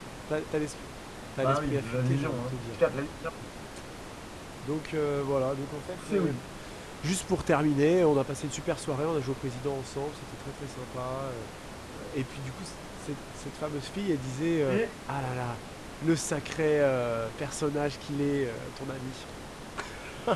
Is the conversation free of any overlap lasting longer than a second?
No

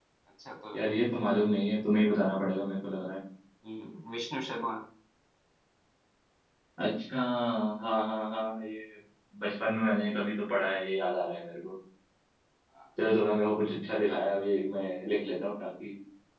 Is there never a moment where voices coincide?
Yes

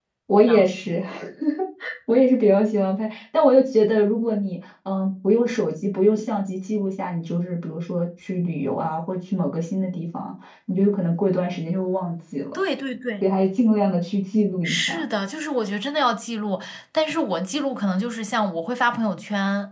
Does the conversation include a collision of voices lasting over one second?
No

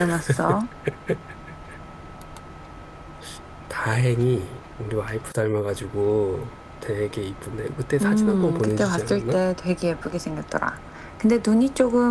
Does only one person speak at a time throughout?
No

